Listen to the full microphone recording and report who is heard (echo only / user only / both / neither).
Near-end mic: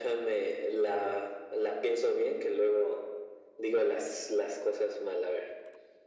echo only